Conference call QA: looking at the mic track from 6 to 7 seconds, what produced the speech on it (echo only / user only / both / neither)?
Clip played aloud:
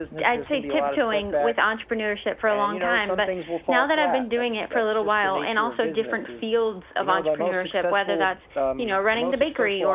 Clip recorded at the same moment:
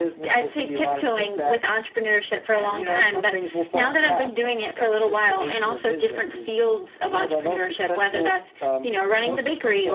echo only